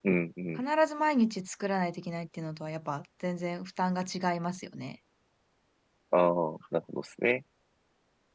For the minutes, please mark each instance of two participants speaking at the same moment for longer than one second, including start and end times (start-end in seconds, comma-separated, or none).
none